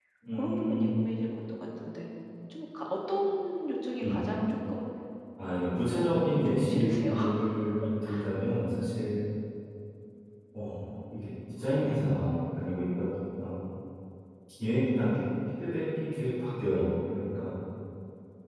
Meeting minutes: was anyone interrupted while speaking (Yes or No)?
Yes